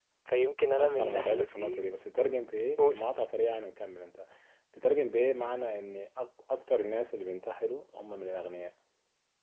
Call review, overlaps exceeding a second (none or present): present